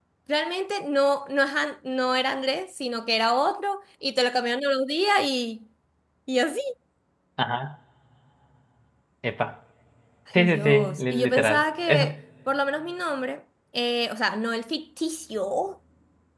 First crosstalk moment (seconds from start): 10.3 s

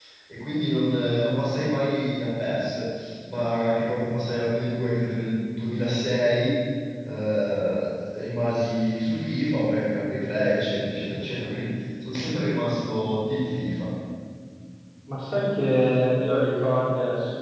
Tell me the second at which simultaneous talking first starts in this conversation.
none

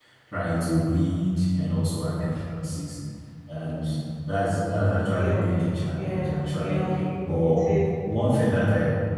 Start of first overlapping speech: 5.1 s

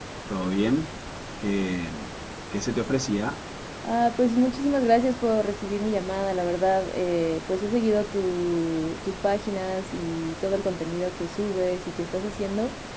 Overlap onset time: none

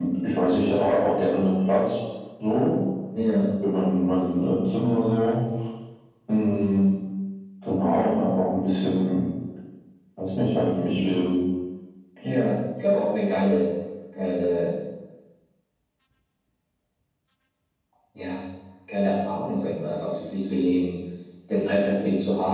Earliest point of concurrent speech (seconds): none

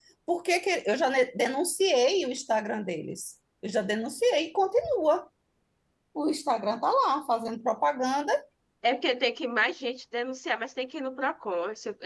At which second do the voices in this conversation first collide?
none

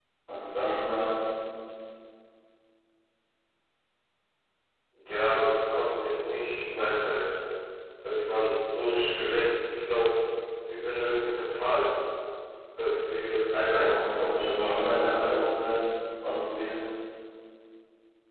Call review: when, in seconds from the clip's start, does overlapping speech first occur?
13.7 s

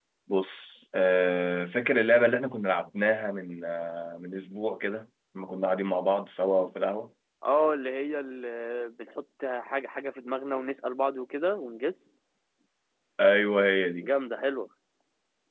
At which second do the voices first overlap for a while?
none

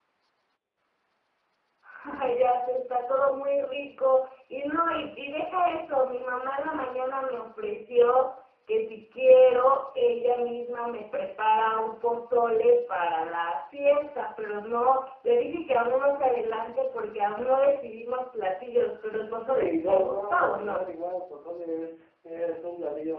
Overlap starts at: 19.4 s

